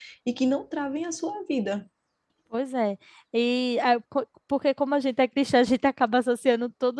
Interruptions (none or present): none